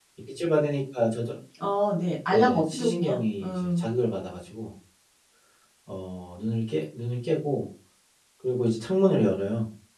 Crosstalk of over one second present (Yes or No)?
Yes